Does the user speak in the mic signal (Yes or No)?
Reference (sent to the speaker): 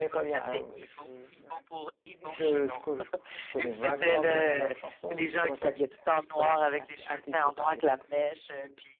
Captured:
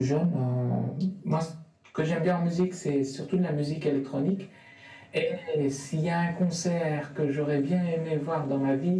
Yes